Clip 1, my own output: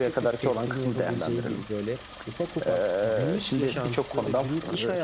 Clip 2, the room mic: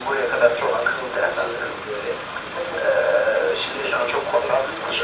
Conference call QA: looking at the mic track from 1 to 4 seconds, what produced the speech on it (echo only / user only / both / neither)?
echo only